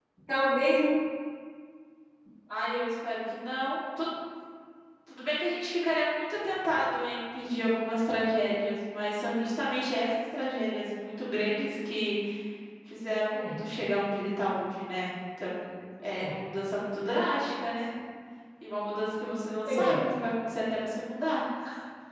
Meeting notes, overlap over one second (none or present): none